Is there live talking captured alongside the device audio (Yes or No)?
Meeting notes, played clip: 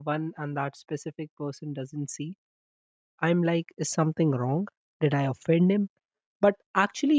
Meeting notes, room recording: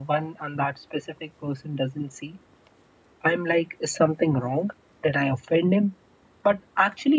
No